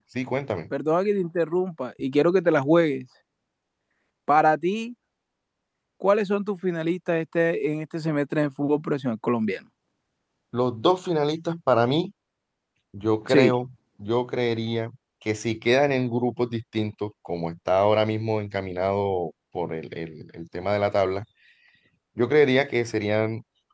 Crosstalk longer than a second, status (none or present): none